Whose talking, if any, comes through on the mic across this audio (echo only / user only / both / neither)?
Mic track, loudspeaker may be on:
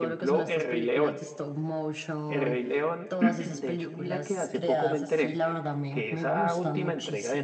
both